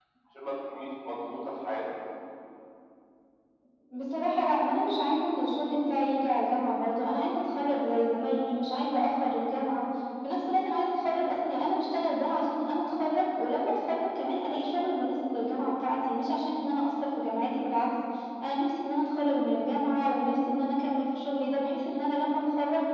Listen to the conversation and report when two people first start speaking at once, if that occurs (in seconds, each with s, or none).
none